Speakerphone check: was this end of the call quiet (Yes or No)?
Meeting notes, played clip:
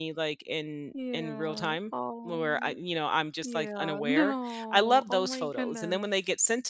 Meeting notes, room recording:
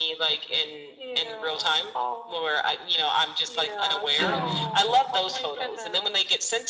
No